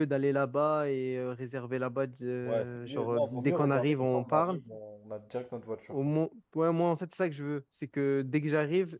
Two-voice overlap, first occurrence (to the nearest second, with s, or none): 2 s